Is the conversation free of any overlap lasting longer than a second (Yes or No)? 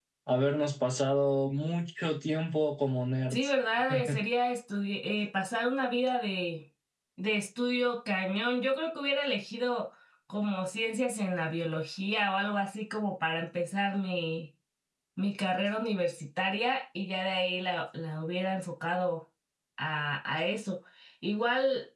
Yes